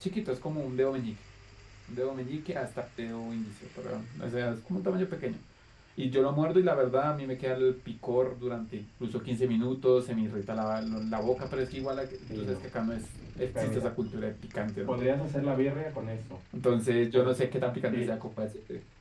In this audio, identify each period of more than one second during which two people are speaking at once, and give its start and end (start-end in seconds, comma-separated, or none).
none